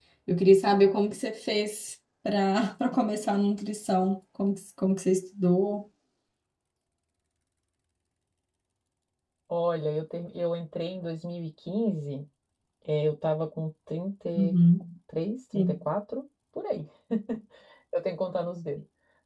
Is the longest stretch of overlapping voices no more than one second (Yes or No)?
Yes